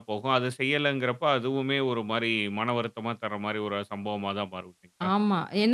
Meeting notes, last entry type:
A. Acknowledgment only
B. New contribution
B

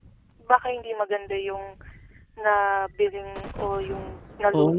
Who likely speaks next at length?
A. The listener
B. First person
A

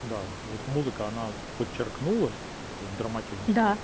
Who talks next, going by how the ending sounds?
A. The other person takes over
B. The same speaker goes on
A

